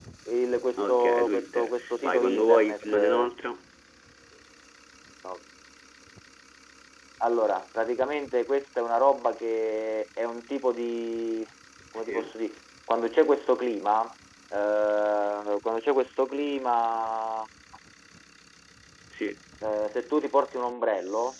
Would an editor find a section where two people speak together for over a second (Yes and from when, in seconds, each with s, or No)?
Yes, from 0.8 s